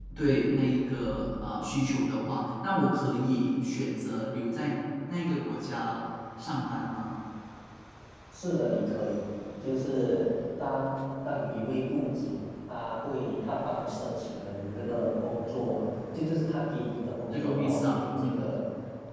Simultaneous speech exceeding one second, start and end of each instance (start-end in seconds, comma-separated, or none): 17.3-18.5